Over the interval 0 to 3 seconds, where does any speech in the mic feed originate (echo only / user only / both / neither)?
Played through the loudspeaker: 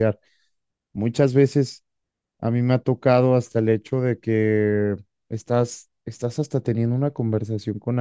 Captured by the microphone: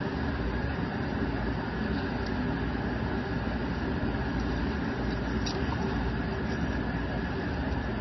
neither